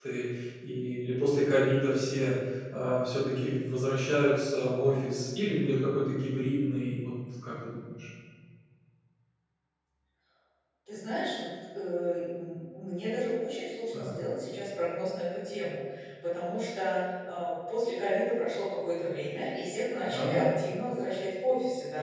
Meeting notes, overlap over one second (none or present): none